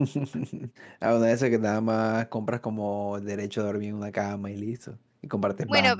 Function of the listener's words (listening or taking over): taking over